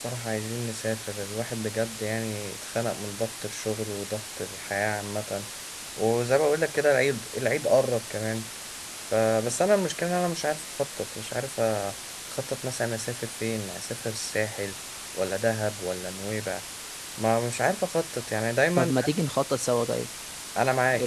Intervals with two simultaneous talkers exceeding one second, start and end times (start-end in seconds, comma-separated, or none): none